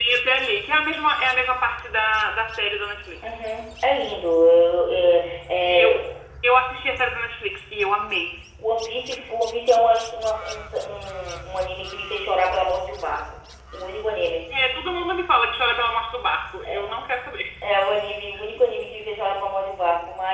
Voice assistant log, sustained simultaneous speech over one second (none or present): none